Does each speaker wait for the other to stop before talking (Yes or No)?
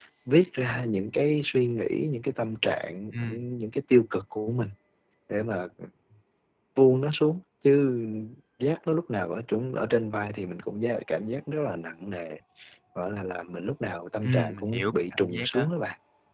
No